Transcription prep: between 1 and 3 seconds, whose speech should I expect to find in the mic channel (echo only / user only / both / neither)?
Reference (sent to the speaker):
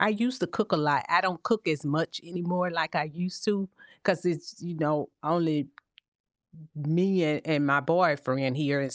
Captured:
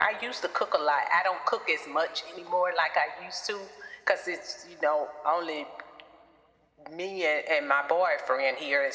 echo only